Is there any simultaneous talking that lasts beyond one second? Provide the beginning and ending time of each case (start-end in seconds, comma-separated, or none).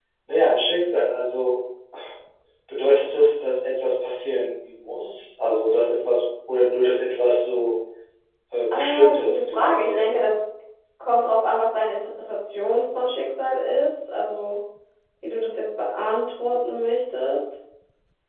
8.7-10.2